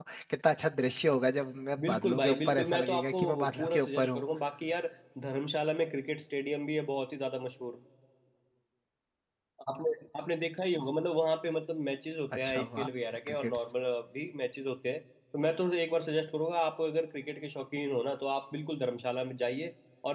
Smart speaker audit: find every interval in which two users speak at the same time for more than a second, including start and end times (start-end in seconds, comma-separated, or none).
1.9-4.2